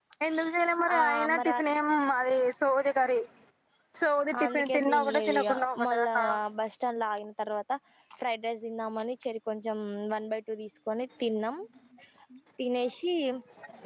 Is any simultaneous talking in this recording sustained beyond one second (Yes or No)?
Yes